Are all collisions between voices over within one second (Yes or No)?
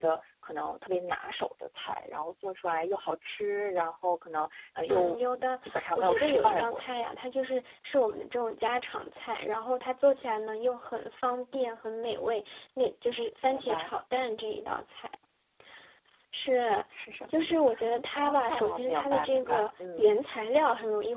No